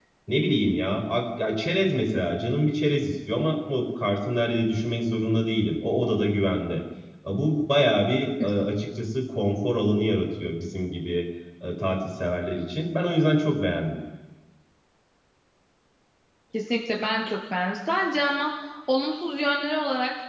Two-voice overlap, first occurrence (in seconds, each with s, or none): none